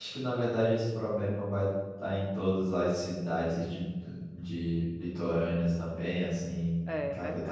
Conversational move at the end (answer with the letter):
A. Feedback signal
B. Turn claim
A